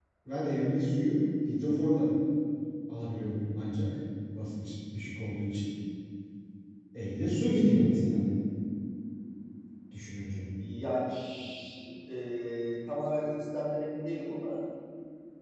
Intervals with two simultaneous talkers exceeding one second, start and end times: none

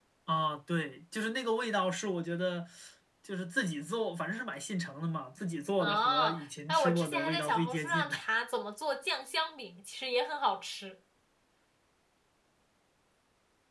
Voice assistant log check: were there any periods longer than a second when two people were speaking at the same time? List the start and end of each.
5.8-8.2

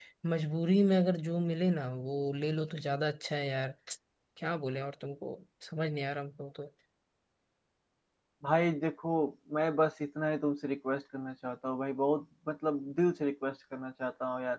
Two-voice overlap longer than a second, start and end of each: none

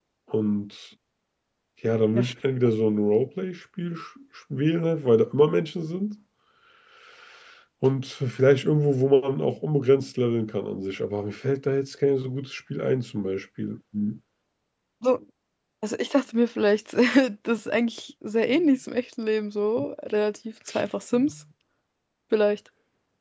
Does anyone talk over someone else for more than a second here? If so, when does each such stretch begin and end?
none

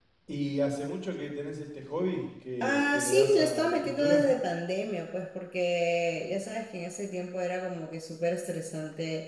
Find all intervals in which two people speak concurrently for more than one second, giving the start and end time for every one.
2.6-4.2

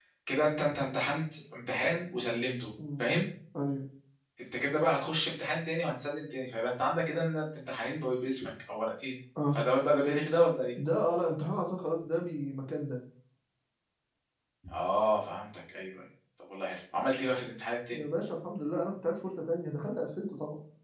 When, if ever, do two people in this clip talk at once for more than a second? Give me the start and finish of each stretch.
none

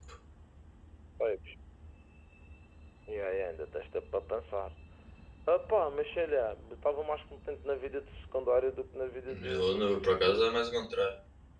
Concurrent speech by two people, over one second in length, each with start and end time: 9.3-10.5

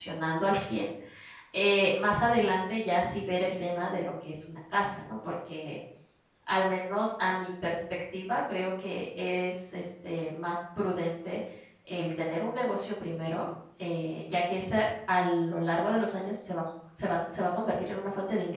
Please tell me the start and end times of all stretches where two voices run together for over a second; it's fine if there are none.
none

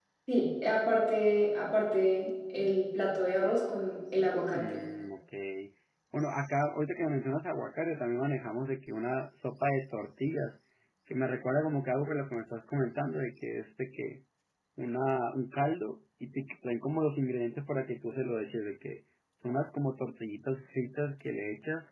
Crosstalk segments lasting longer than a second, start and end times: none

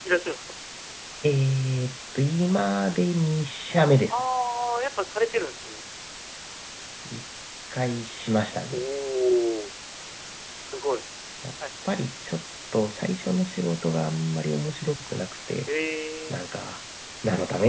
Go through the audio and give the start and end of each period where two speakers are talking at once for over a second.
none

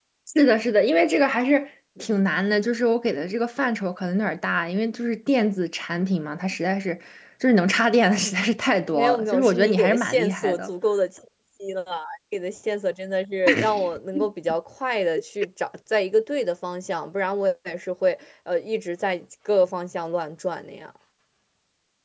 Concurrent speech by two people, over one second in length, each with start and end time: 8.9-10.7

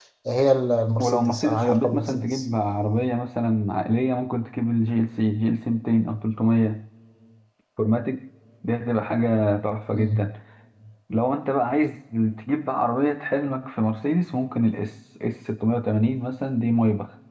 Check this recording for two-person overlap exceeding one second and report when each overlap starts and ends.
1.0-2.5

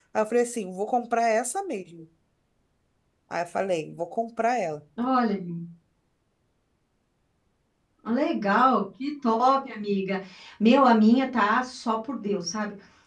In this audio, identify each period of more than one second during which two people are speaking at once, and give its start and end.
none

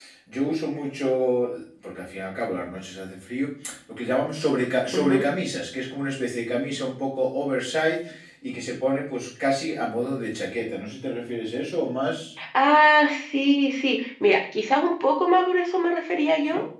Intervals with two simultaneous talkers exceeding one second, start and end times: none

